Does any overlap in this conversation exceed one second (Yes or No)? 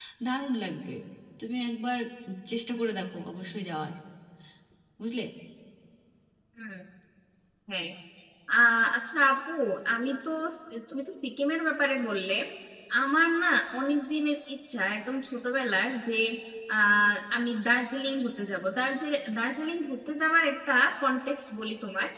No